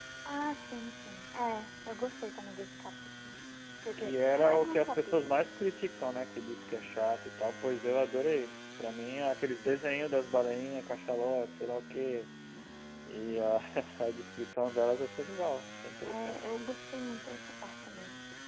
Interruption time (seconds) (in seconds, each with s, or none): 4.0 s